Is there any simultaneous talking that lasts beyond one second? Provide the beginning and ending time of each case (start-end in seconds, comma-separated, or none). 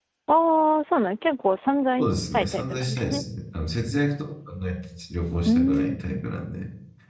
2.0-3.2